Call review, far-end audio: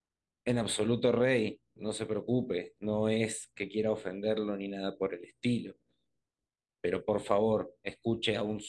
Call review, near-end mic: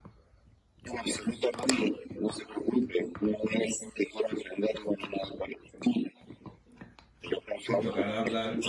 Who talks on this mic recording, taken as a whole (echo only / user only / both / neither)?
both